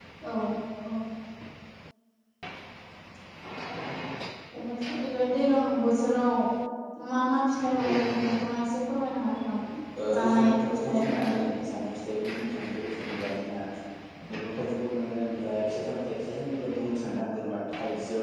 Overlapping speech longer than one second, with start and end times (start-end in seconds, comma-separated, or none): 10.2-11.4